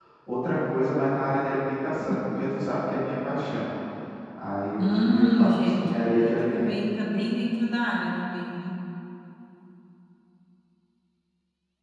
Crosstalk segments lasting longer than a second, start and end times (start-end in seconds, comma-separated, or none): 4.8-6.7